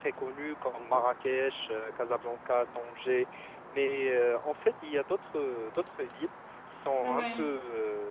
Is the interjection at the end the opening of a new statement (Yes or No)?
No